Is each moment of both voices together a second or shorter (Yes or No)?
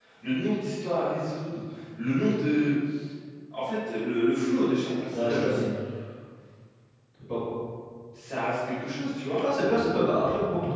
Yes